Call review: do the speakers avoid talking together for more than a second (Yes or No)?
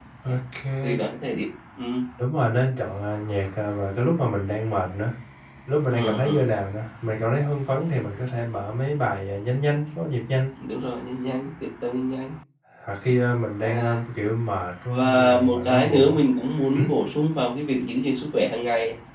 No